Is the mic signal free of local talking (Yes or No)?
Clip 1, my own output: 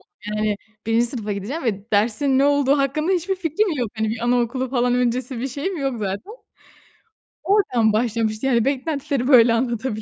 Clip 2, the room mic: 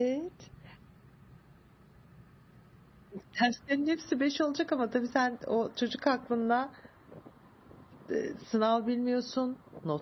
No